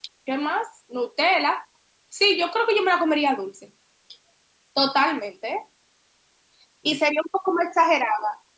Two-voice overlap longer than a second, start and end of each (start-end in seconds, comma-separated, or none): none